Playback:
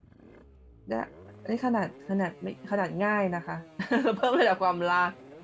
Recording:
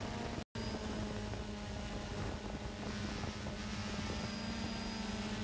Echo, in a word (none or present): none